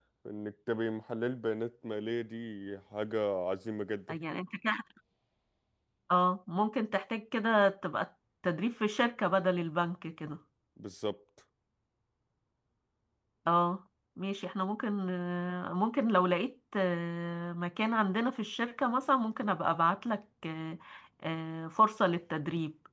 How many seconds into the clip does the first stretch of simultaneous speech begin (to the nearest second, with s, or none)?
none